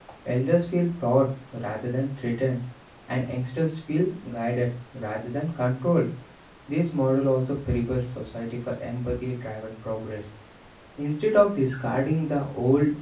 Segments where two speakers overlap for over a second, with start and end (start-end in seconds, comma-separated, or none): none